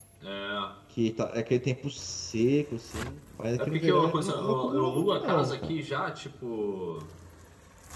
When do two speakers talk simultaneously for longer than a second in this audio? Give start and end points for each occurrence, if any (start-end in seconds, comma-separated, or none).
3.7-5.7